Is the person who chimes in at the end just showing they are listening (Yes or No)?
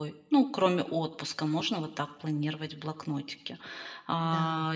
Yes